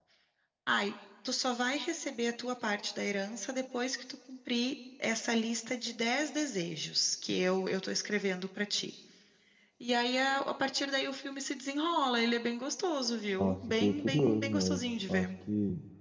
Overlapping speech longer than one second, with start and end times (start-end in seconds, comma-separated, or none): 13.4-15.3